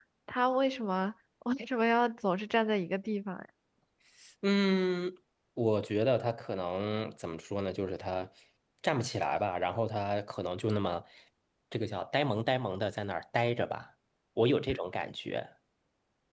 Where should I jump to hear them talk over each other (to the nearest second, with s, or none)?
none